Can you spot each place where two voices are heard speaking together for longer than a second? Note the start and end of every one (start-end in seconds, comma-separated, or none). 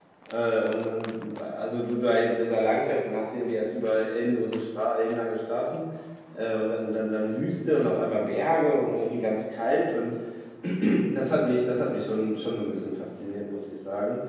none